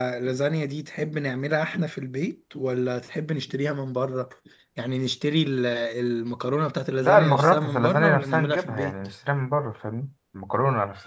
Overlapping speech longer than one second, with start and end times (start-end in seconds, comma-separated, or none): 7.0-8.9